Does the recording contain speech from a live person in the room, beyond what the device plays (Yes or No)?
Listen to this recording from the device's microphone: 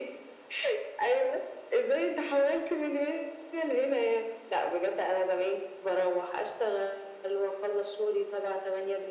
No